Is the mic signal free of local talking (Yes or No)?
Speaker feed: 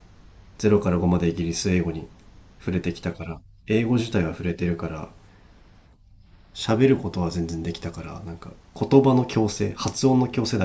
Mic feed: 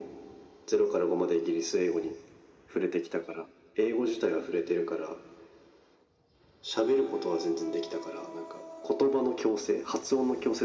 Yes